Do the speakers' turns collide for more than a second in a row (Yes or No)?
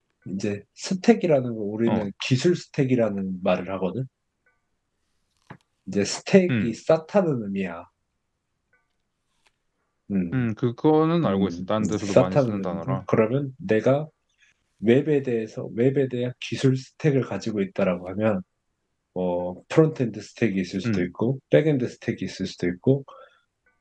Yes